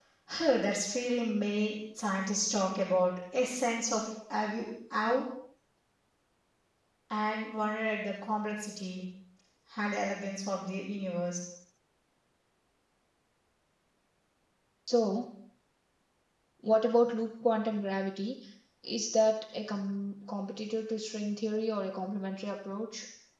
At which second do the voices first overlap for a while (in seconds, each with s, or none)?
none